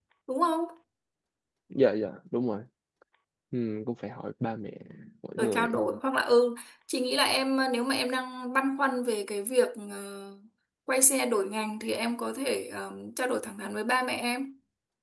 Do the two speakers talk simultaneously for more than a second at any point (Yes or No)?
No